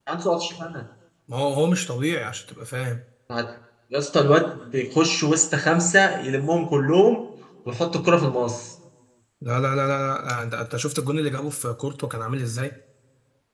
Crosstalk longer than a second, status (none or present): none